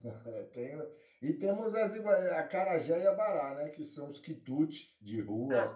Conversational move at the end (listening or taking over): taking over